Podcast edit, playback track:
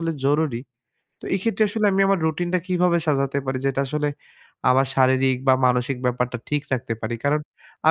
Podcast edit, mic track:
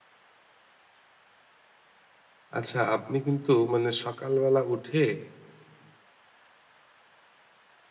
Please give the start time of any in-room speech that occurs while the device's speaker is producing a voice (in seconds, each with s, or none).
2.6 s